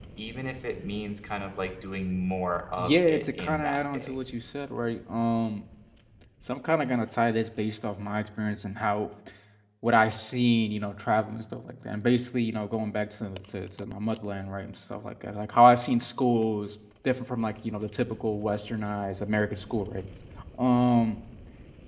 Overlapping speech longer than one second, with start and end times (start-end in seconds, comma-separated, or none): 2.8-4.1